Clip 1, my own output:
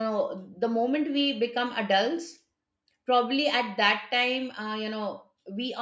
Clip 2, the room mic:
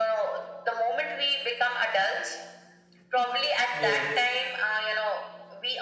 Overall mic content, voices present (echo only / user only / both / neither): both